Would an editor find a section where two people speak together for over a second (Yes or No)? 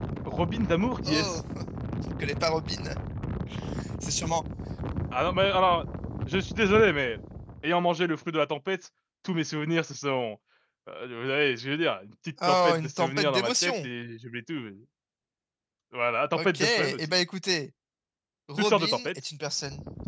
Yes